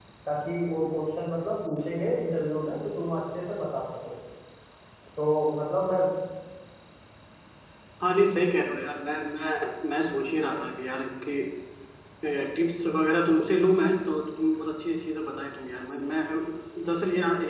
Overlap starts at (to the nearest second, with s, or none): none